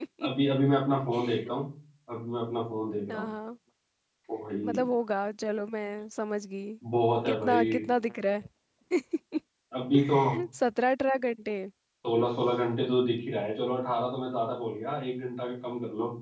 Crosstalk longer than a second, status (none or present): none